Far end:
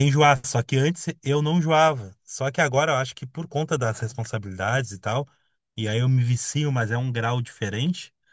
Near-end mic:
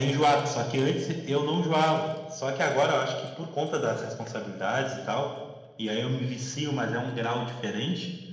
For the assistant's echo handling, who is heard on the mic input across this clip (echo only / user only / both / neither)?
echo only